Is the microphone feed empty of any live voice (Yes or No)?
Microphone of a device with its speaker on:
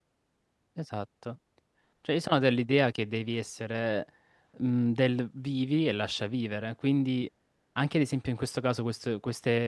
No